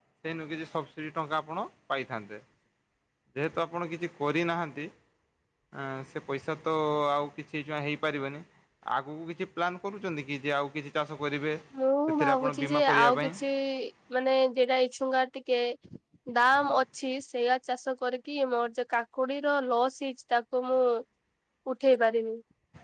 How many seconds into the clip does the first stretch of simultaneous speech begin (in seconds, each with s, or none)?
12.1 s